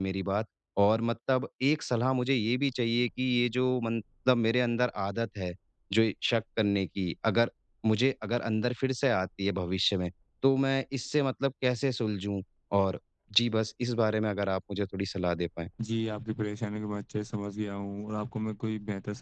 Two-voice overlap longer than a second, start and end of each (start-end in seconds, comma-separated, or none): none